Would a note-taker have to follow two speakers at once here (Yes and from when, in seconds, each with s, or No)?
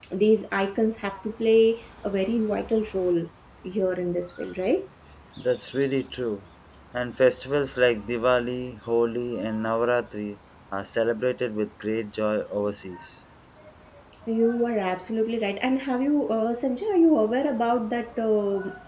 No